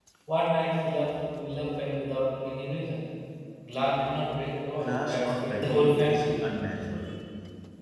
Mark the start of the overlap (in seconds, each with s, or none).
4.8 s